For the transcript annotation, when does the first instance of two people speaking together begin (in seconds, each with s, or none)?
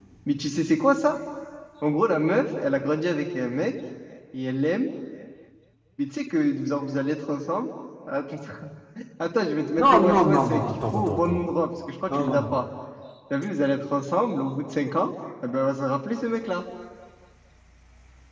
9.8 s